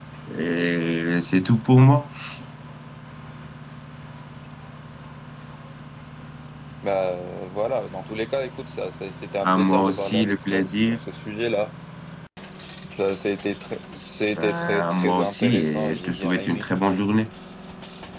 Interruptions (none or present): present